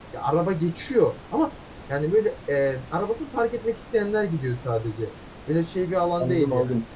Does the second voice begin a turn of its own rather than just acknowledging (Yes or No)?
Yes